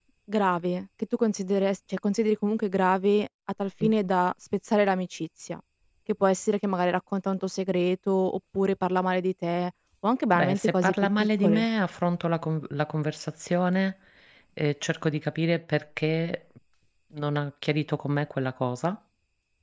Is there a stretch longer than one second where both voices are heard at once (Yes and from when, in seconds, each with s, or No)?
Yes, from 10.4 s